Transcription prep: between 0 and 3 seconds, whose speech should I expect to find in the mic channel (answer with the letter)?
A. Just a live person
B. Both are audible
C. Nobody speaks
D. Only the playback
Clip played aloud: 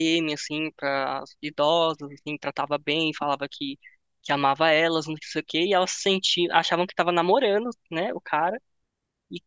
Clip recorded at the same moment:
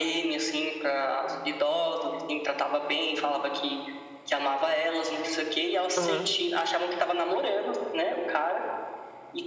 D